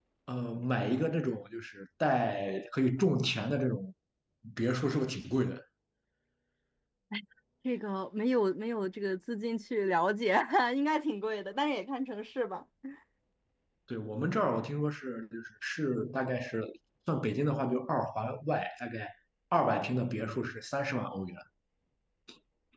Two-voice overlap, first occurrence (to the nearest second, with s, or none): none